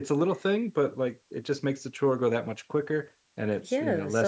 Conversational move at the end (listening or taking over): taking over